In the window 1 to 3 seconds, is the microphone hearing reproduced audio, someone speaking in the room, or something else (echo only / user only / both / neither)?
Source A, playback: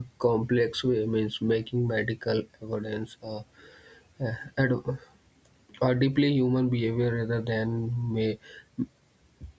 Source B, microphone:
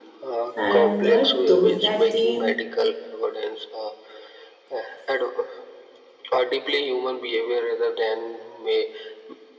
both